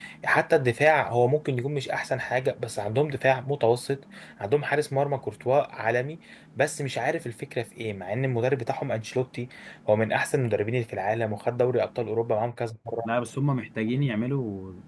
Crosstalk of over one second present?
No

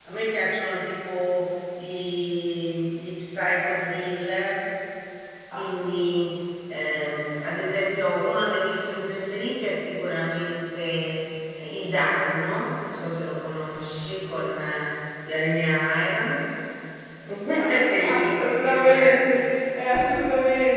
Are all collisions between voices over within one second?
No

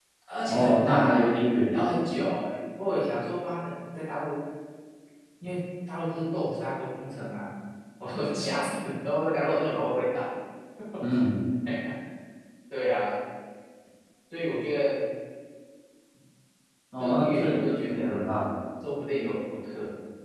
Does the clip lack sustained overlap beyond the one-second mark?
No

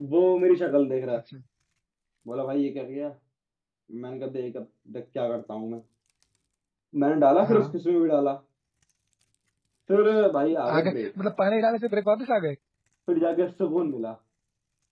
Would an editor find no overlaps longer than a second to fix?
Yes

